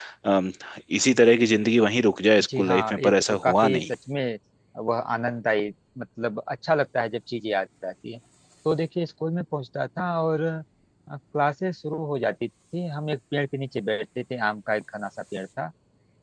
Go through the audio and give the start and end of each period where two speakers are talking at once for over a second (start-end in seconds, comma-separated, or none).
2.4-3.8